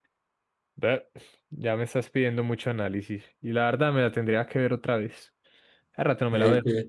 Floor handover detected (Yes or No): Yes